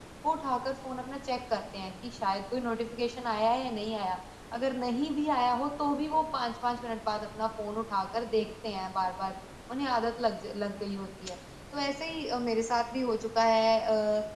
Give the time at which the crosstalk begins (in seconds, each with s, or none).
none